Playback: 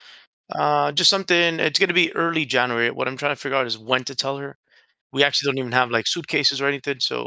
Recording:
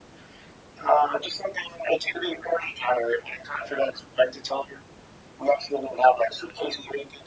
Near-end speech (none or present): none